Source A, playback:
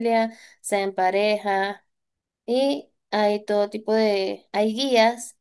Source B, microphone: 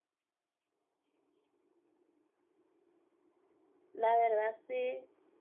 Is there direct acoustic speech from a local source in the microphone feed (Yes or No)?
Yes